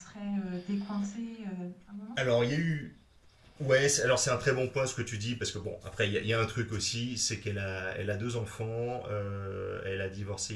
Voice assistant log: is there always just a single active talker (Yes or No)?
Yes